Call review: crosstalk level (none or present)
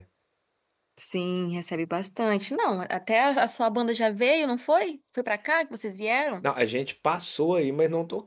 none